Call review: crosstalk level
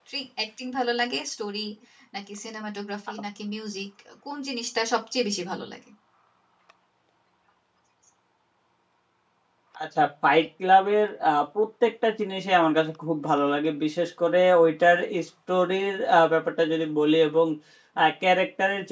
none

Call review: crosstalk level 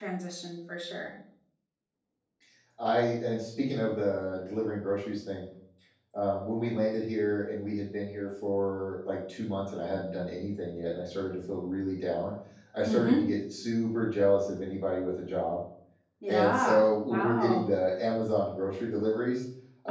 present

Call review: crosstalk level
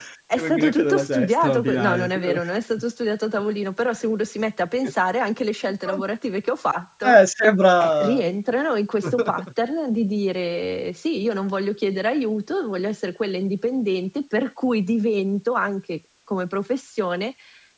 present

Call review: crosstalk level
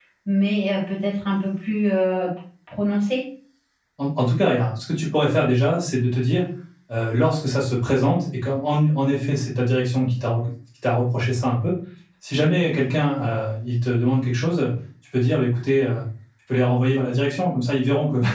none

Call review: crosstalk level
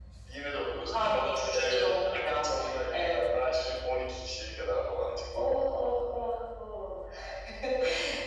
present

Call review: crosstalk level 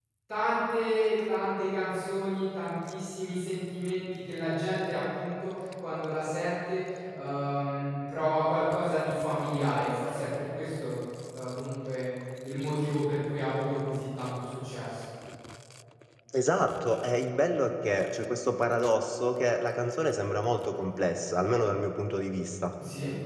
none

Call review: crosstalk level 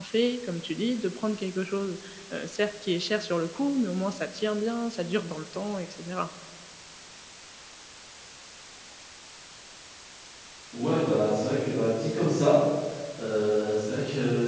none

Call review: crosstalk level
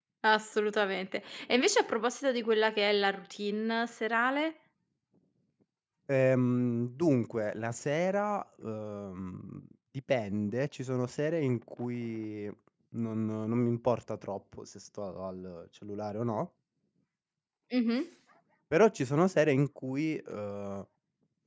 none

